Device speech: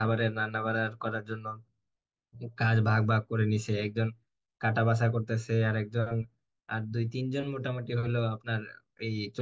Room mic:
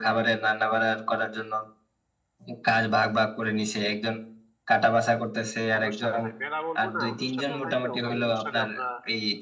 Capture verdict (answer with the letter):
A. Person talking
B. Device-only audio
A